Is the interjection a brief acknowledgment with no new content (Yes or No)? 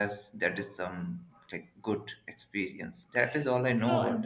No